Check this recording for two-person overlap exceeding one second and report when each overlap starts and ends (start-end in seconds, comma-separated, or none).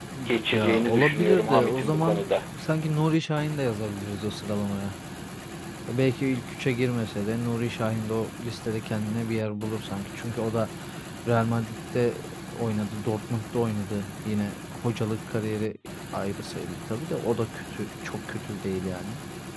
0.5-2.2